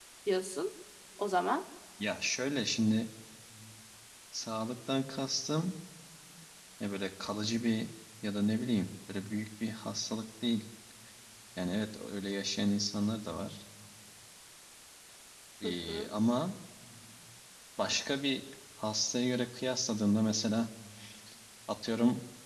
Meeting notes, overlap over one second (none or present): none